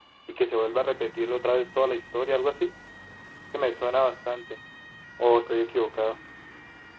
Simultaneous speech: No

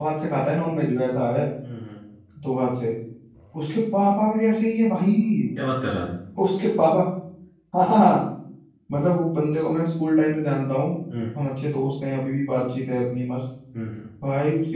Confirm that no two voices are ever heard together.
Yes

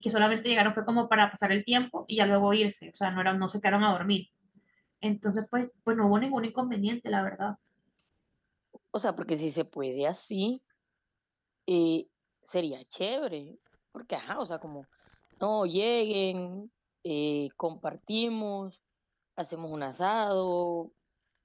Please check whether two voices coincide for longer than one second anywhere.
No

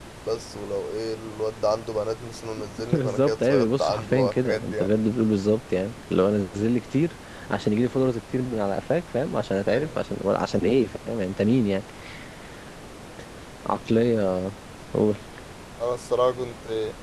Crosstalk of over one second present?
Yes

